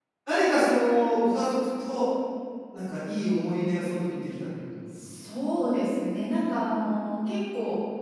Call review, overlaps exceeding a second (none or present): none